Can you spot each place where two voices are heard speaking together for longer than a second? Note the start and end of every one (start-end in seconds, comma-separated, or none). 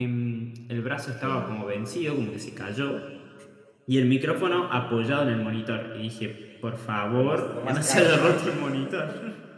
7.1-8.4